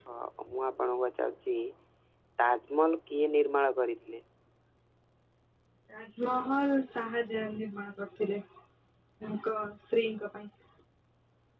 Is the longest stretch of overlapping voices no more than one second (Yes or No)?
Yes